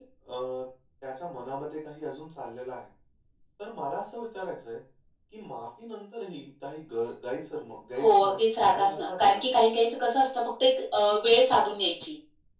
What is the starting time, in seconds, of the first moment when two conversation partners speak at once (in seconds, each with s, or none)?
8.0 s